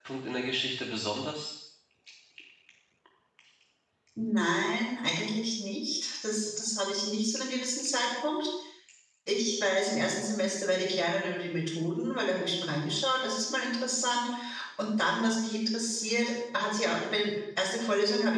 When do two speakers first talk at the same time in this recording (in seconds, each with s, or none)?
none